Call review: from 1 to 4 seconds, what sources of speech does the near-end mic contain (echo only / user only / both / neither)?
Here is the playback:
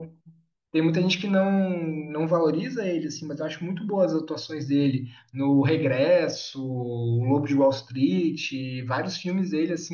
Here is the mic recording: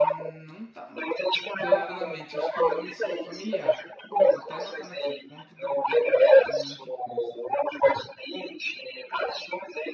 both